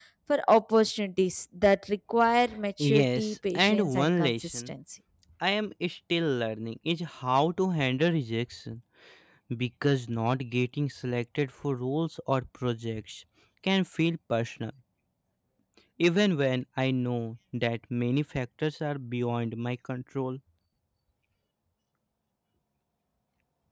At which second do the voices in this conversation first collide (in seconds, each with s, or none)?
2.8 s